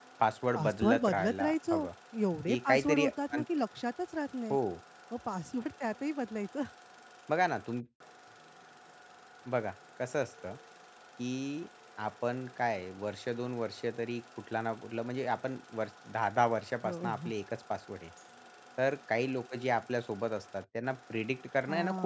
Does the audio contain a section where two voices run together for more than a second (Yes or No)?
Yes